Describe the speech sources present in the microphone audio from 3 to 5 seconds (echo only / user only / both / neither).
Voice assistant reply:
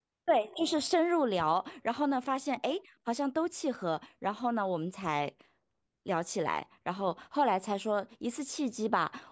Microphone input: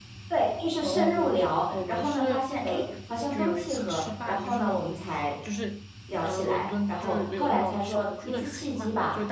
both